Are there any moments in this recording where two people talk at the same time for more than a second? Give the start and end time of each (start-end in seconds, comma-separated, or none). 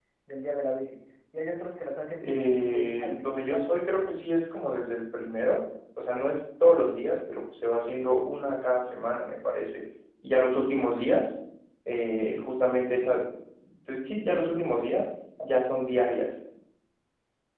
2.2-3.8